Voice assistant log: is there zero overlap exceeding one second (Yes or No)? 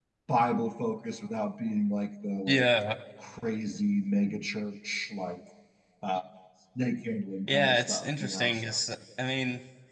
No